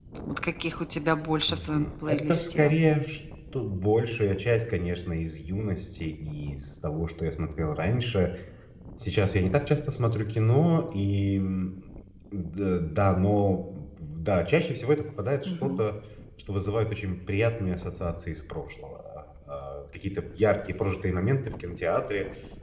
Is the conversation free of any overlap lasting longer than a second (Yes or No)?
No